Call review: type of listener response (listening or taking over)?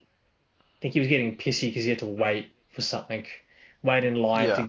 listening